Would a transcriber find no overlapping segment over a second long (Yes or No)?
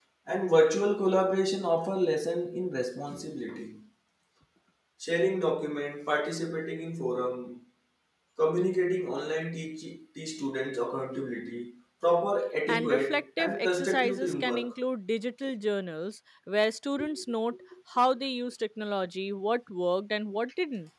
No